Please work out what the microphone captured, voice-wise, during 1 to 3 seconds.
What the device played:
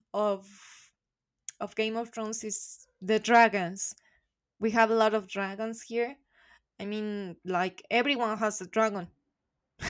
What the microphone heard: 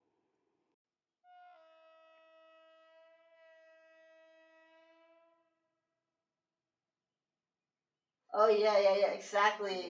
neither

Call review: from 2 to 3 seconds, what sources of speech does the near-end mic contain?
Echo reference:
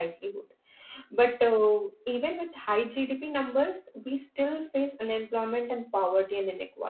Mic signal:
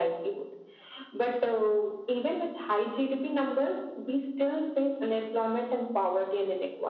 echo only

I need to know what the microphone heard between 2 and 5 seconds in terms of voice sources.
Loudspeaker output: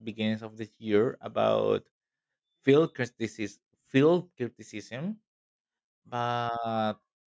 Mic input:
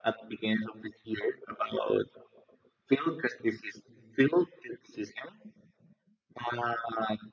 echo only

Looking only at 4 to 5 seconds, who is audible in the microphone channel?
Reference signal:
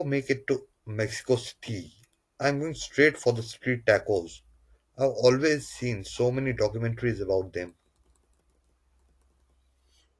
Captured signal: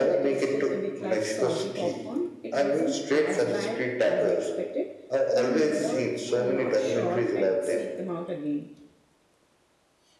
both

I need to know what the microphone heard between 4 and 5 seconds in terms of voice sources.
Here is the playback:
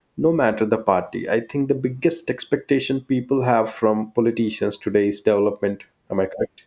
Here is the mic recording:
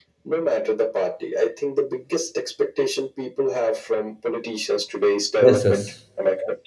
echo only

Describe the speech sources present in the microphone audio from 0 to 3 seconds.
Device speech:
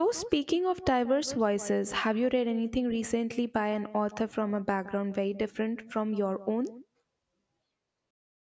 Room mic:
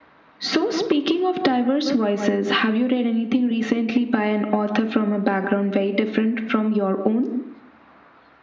echo only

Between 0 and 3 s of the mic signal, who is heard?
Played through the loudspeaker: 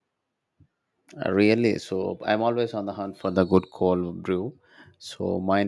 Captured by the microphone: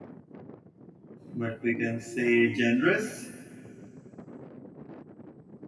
user only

